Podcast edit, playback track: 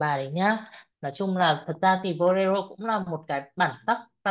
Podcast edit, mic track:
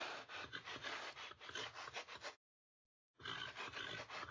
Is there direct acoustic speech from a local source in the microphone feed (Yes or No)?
No